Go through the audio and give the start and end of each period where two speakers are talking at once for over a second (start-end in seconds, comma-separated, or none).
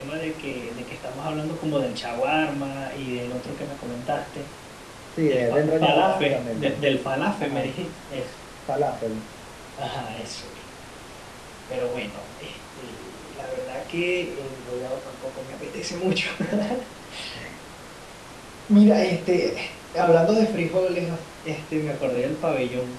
5.3-6.8